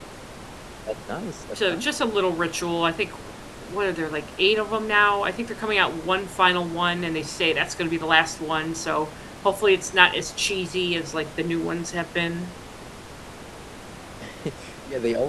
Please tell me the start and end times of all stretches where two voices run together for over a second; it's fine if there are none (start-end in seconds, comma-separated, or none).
none